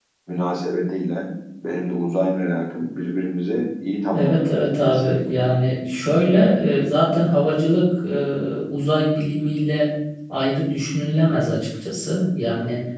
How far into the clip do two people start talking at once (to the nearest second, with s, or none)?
4 s